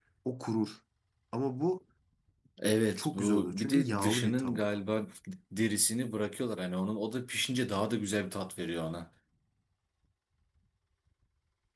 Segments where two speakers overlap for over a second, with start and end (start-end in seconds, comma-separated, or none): 3.0-4.6